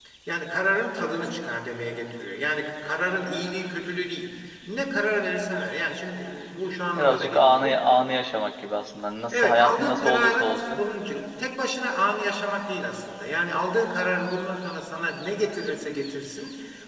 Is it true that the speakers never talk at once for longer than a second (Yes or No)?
No